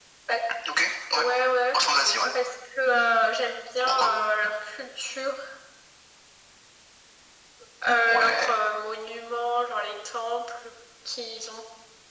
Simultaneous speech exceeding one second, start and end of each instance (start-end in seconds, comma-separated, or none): none